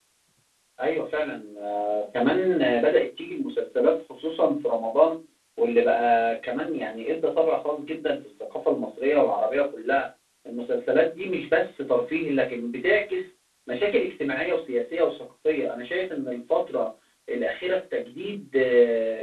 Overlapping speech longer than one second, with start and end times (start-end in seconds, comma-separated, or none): none